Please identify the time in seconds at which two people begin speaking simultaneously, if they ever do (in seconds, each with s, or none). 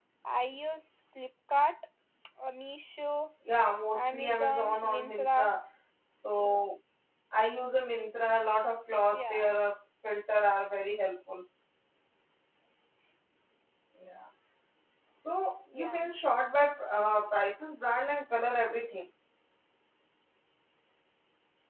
3.9 s